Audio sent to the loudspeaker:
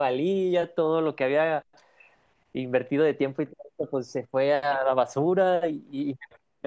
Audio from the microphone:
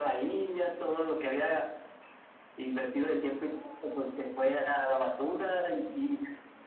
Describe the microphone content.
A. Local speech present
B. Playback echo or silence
B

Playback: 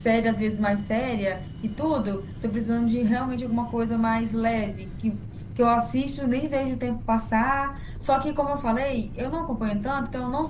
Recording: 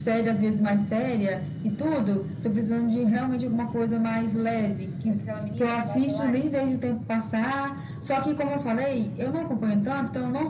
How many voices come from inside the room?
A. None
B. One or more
B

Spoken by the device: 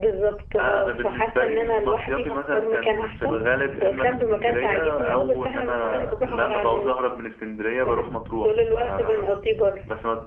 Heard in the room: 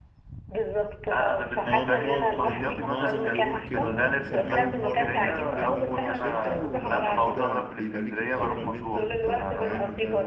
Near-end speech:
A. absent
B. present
B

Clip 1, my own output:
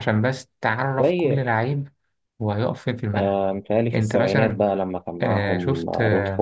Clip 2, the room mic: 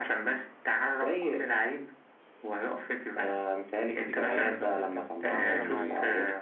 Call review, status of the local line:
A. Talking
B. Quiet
A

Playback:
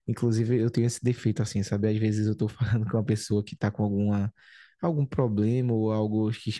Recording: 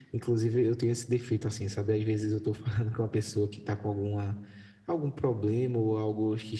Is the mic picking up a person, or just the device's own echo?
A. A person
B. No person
B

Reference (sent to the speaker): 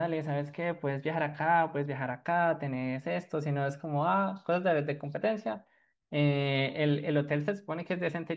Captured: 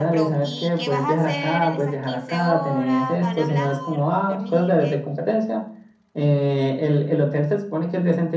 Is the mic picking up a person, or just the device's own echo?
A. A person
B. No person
A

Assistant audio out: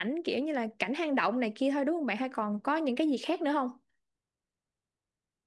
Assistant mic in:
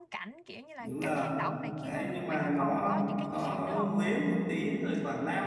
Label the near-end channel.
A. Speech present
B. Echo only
A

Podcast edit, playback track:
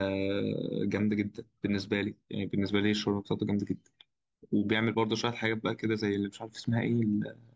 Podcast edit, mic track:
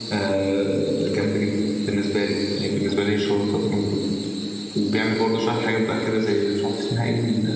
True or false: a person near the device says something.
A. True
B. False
B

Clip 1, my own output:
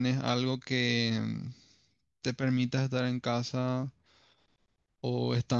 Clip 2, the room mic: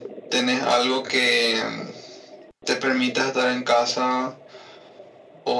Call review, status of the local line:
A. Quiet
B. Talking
A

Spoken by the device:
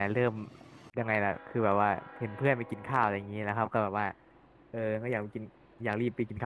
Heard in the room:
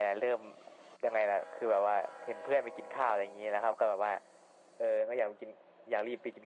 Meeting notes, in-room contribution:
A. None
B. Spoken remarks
A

